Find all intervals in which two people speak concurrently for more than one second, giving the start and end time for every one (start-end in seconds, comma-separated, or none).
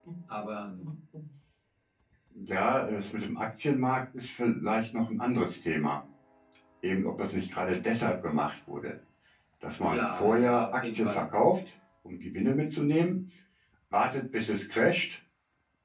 9.9-11.2